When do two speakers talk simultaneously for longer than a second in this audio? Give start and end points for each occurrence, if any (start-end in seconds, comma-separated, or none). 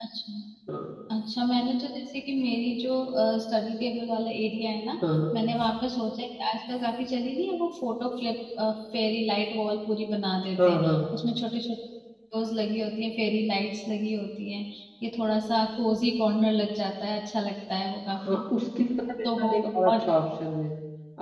none